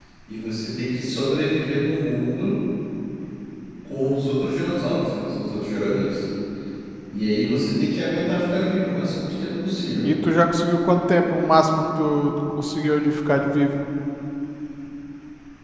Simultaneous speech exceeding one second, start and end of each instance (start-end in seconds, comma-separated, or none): none